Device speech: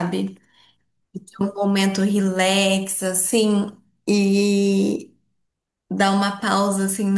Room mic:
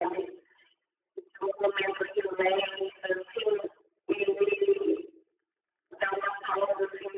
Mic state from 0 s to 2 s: echo only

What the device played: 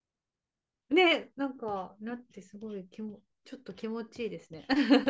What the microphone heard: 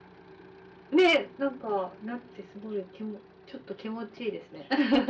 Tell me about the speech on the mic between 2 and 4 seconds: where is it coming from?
echo only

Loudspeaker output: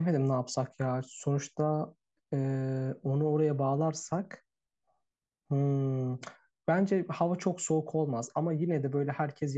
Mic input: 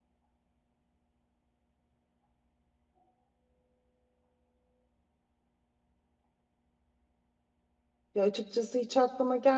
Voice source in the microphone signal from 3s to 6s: neither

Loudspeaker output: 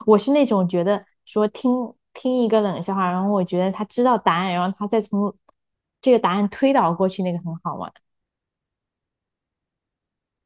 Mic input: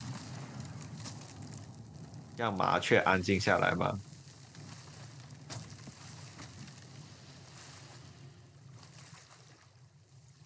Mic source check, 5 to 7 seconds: neither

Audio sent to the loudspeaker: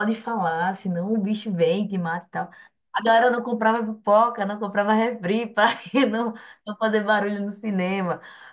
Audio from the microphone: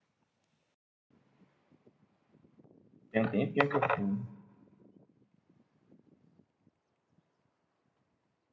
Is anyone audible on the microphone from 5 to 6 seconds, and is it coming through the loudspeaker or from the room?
neither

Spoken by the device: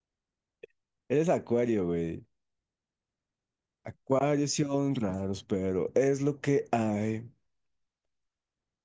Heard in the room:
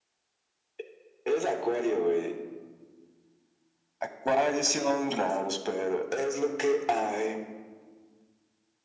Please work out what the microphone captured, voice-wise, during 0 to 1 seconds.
neither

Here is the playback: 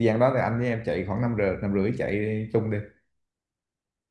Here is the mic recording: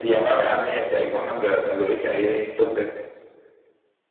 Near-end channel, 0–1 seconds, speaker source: echo only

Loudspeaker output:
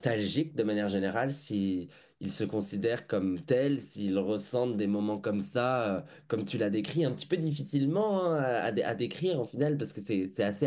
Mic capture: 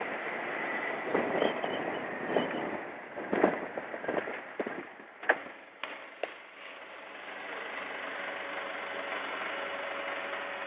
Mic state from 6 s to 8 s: neither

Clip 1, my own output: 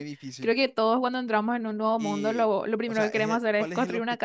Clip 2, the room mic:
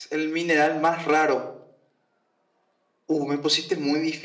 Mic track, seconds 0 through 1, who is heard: user only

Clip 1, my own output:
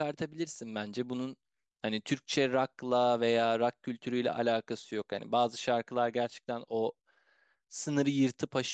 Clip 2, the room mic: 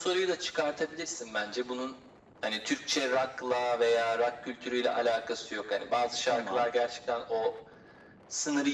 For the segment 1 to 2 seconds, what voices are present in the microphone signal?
echo only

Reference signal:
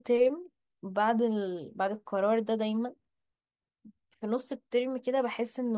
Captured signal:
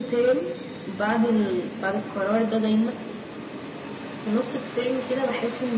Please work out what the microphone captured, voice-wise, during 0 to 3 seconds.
echo only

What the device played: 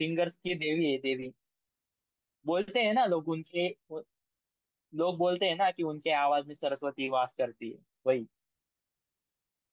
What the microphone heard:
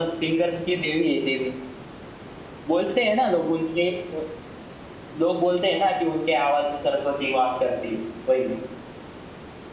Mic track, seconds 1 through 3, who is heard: echo only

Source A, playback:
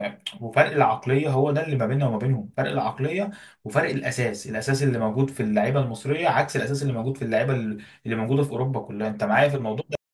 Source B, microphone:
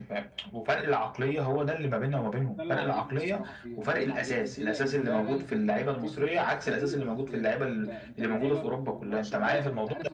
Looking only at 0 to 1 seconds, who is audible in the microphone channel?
echo only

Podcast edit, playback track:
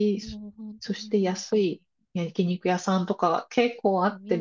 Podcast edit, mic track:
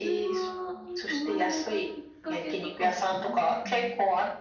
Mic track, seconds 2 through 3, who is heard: both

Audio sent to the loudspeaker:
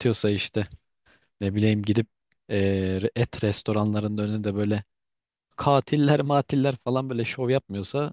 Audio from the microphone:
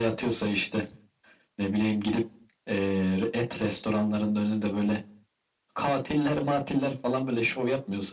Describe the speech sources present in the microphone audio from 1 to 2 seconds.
echo only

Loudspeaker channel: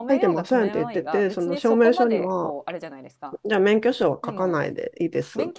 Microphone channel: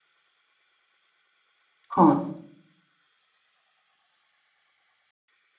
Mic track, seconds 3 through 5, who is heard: neither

